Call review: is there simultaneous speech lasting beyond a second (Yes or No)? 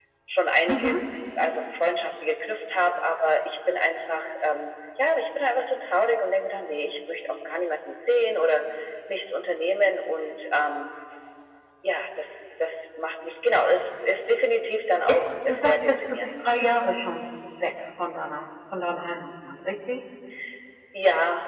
Yes